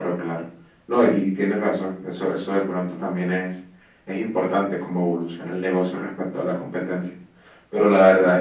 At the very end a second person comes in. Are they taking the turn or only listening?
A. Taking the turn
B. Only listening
B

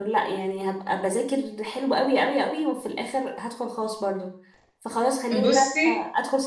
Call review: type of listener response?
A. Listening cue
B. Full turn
A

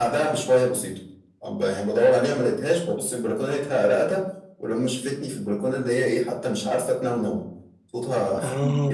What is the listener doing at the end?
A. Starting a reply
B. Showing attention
B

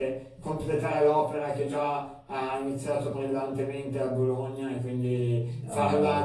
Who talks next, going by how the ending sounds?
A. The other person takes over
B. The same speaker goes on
B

